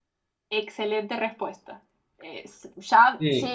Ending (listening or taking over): listening